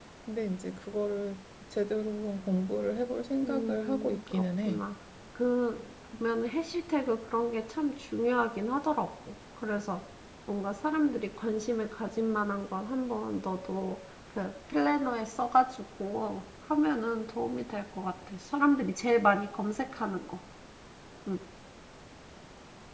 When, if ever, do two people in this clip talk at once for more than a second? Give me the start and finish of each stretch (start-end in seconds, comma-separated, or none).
3.4-4.8